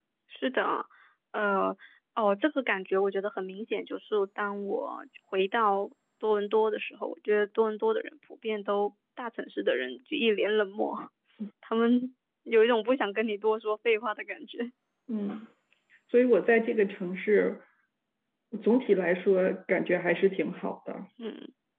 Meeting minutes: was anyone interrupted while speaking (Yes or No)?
No